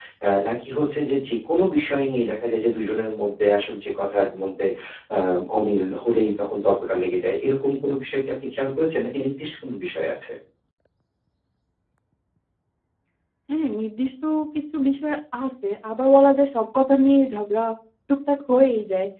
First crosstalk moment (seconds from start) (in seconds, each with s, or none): none